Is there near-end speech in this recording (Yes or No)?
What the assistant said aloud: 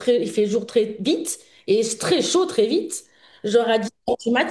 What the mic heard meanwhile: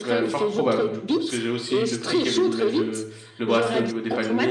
Yes